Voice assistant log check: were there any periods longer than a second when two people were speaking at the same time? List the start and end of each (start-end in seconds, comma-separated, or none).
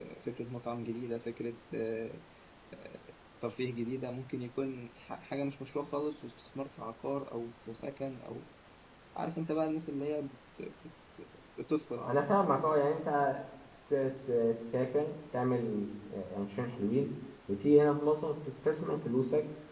none